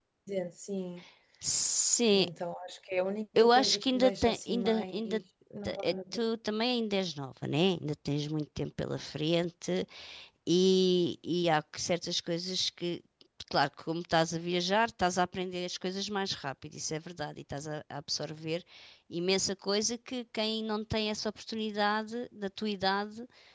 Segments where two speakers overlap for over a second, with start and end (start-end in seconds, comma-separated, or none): 3.4-5.0